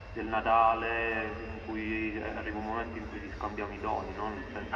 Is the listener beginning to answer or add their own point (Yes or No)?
Yes